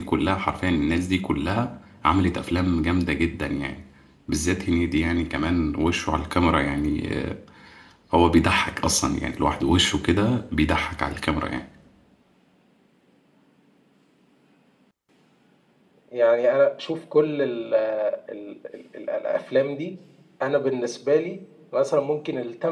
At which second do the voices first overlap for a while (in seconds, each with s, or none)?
none